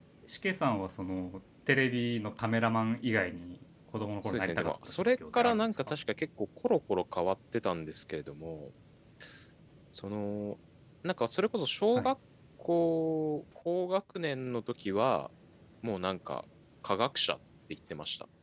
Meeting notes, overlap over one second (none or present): present